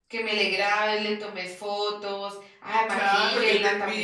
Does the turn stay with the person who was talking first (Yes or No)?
No